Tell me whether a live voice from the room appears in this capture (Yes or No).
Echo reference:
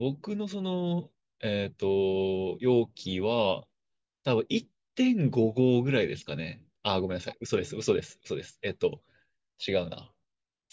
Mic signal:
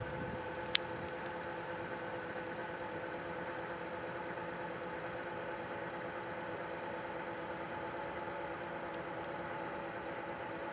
No